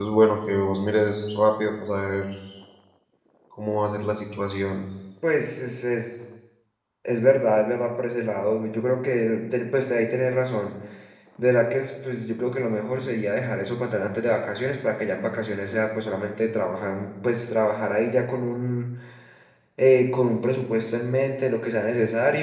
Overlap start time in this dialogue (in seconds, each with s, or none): none